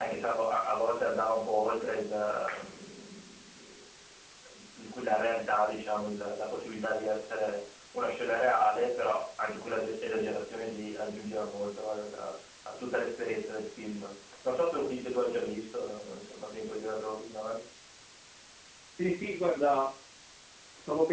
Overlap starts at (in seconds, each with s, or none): none